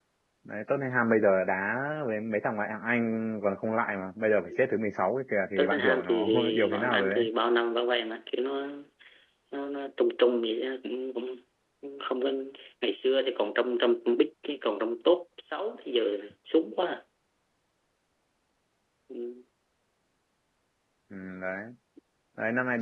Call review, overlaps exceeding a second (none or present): present